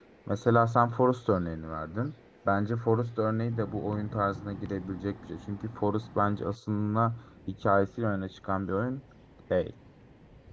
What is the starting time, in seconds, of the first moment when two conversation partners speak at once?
none

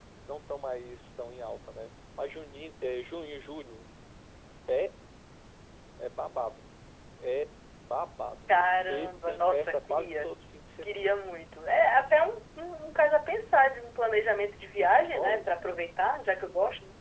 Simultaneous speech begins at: 8.5 s

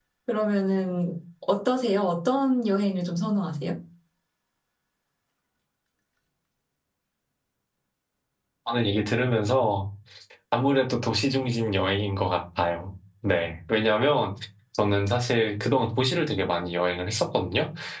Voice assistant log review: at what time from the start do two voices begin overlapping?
none

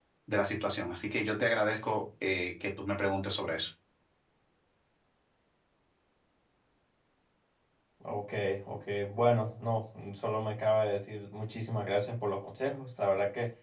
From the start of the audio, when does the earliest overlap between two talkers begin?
none

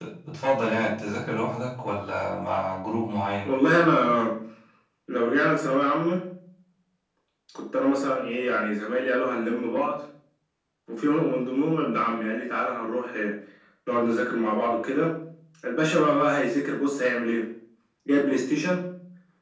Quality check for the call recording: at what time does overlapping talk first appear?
none

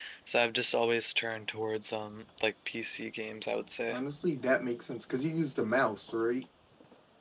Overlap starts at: none

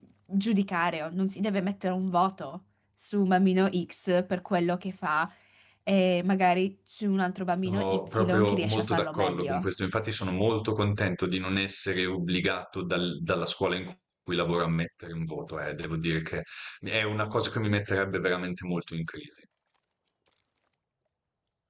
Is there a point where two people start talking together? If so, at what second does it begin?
7.6 s

